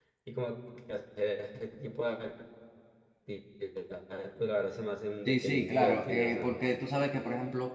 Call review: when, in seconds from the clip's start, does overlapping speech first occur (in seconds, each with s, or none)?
5.3 s